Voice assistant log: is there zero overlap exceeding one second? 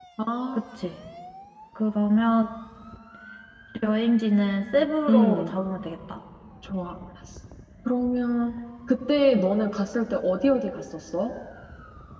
Yes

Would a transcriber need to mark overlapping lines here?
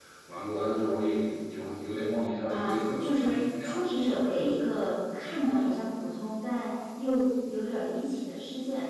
Yes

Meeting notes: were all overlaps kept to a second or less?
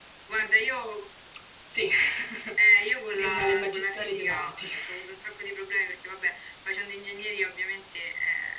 No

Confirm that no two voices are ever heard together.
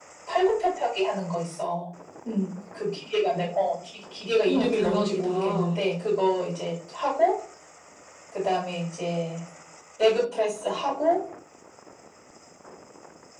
No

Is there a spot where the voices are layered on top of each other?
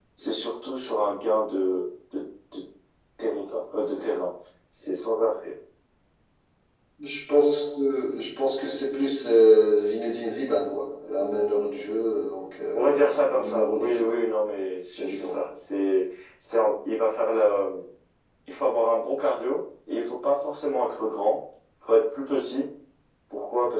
Yes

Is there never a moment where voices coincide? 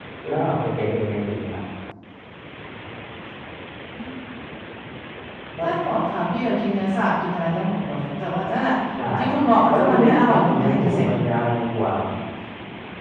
No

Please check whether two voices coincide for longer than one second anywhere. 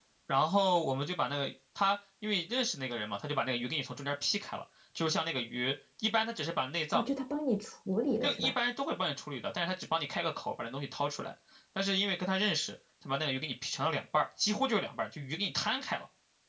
No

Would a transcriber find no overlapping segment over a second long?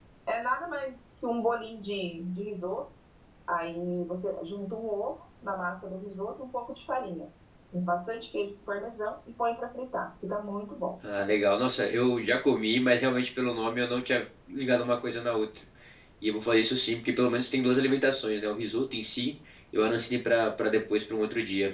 Yes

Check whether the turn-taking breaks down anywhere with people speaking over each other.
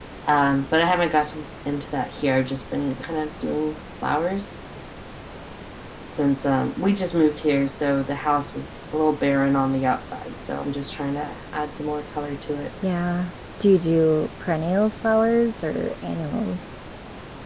No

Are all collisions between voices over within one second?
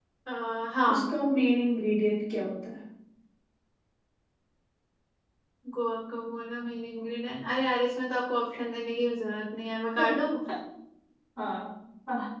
Yes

